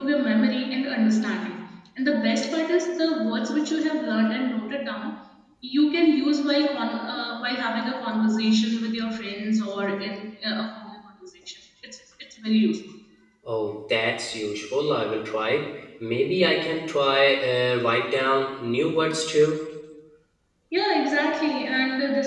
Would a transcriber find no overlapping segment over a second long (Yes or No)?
Yes